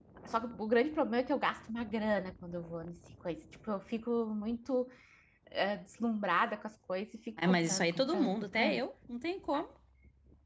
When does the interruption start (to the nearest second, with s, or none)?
7 s